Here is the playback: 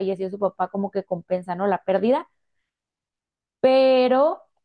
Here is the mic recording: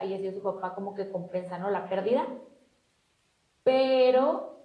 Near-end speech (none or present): none